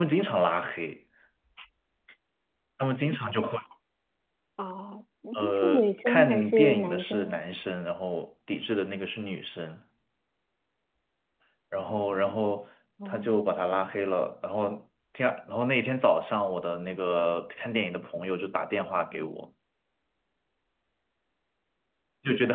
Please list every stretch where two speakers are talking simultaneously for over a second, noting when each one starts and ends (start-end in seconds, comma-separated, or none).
5.3-7.4